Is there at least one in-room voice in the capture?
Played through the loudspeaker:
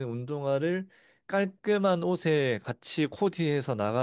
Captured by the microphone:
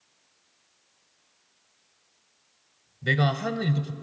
Yes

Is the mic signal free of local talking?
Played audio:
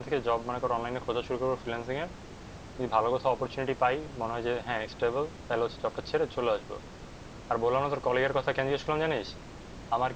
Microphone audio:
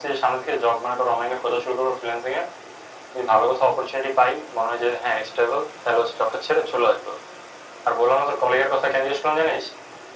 Yes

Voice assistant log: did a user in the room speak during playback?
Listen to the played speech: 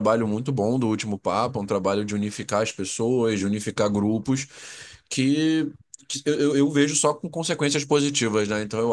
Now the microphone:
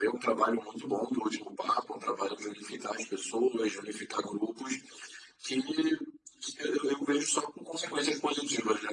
No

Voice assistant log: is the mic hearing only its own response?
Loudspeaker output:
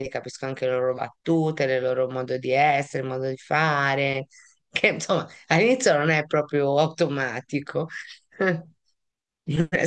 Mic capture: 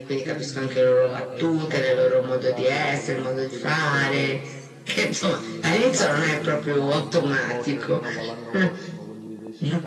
No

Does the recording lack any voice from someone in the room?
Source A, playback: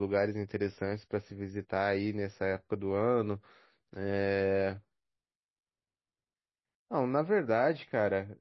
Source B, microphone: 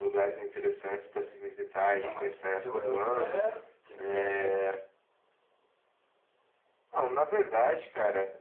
No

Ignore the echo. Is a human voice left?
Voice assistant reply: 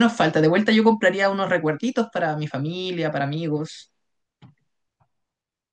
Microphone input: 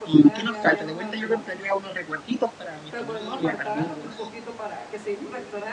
Yes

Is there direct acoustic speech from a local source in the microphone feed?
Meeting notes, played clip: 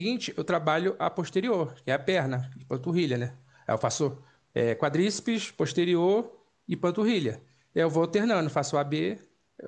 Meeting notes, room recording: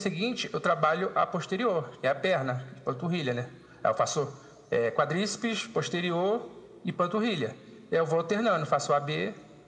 No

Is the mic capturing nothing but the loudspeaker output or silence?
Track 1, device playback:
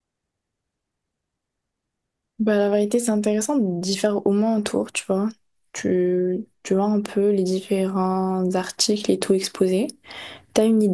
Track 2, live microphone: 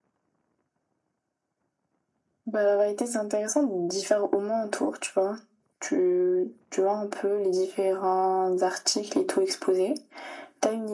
Yes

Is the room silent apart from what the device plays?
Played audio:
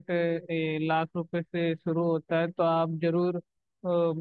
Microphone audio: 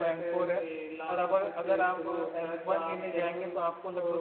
No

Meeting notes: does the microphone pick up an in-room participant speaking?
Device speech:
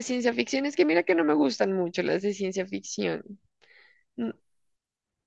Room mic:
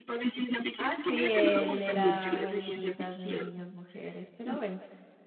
Yes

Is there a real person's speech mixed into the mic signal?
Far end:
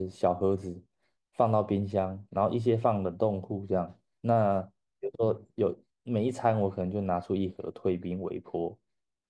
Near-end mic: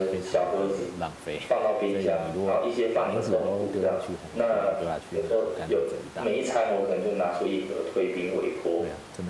Yes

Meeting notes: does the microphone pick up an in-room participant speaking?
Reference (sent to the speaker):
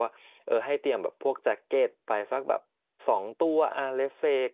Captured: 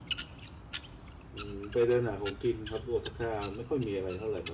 Yes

